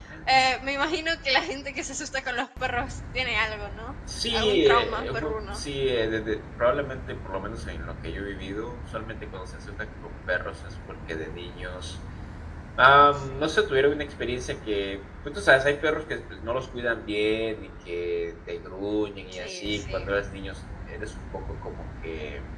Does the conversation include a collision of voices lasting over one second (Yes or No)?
Yes